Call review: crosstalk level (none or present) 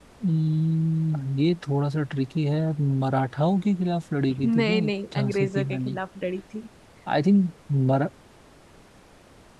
present